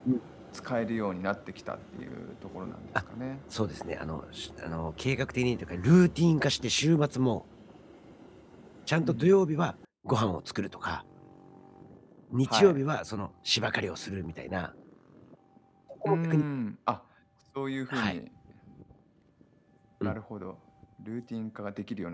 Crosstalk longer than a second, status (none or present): none